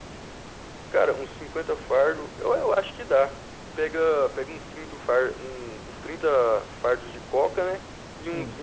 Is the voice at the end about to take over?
No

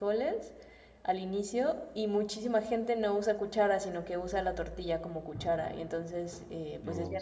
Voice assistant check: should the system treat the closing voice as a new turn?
No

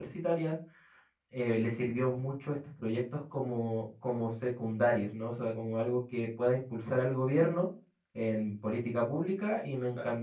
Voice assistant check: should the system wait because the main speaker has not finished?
Yes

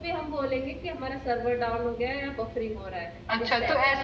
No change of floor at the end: No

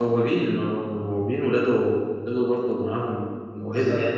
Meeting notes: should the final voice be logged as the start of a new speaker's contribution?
Yes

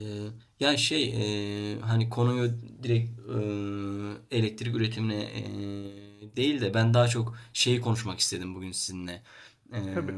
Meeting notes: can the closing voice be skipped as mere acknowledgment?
Yes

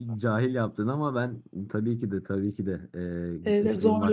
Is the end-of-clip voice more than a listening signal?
Yes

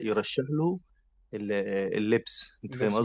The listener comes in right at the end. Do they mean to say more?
Yes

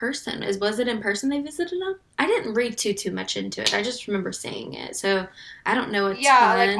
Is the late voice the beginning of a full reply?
Yes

